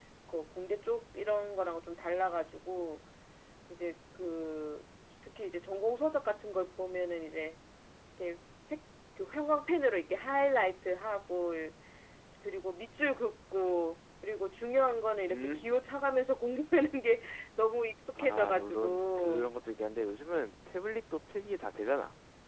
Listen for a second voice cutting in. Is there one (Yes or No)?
Yes